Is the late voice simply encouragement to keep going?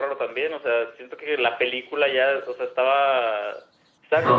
Yes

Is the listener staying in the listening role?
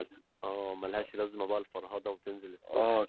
No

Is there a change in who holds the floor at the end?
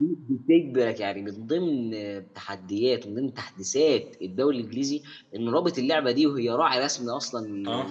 No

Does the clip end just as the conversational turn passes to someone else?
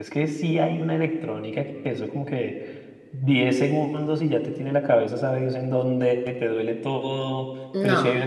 No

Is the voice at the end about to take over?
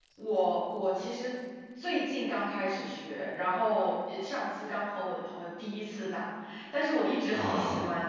No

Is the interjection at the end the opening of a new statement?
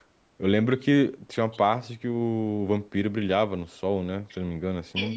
Yes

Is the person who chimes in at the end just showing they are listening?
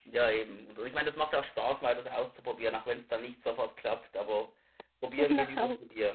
Yes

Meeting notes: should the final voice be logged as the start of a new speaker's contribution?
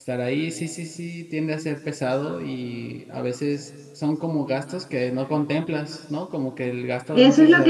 Yes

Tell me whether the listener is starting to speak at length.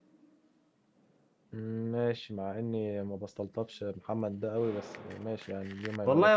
Yes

